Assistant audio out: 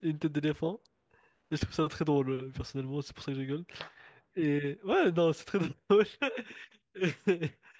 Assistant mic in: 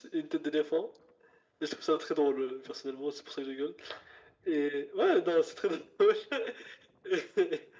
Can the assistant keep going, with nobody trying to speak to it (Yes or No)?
Yes